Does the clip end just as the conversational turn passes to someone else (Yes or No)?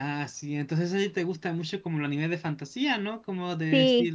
No